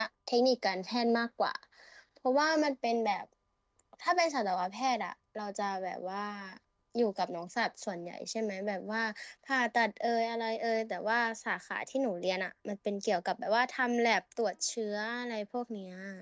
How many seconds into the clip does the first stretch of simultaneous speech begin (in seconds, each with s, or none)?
none